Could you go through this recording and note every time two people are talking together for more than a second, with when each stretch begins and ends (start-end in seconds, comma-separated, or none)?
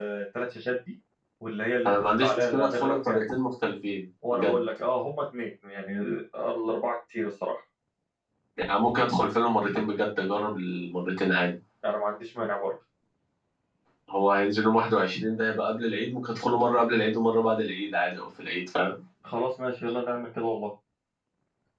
1.9-3.2